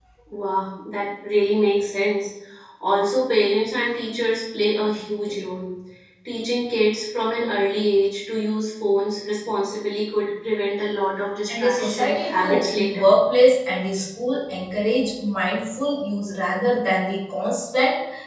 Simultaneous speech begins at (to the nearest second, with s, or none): 11 s